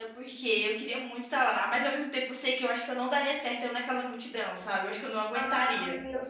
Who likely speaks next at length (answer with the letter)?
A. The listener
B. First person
A